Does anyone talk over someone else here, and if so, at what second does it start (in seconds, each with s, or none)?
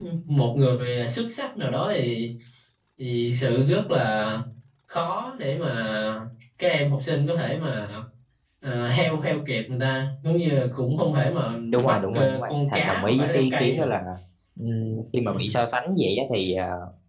11.7 s